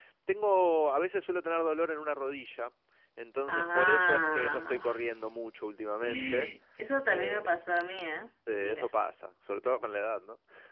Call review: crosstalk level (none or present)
present